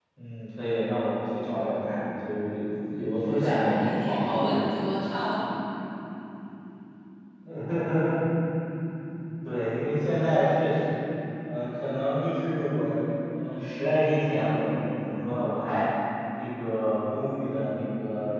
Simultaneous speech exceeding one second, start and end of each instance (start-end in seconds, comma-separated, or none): 3.3-4.6